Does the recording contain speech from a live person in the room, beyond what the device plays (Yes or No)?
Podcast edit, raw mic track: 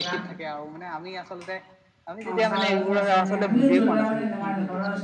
Yes